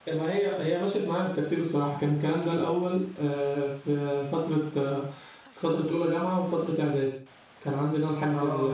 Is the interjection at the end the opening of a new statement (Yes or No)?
No